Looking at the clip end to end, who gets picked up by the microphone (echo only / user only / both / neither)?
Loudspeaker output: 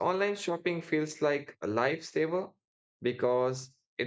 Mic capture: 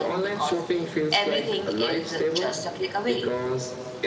both